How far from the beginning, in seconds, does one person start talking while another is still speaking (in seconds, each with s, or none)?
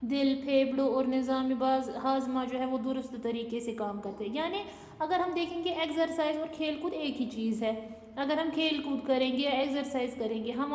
none